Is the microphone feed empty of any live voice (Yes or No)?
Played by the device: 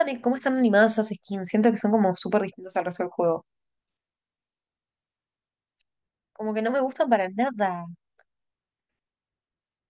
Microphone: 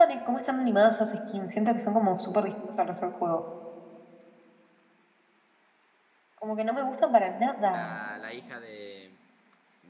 No